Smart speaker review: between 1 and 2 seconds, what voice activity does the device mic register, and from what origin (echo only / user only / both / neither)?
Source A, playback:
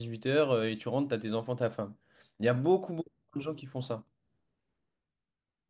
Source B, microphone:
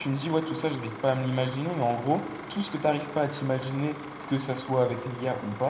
user only